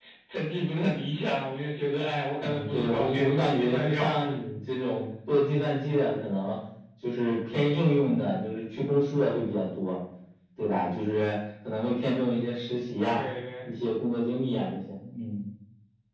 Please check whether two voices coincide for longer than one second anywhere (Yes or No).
Yes